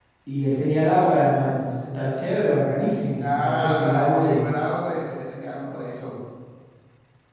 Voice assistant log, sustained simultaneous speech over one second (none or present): present